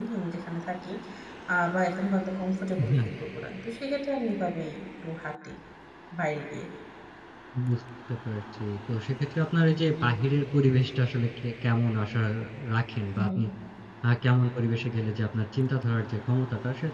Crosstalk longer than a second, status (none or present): none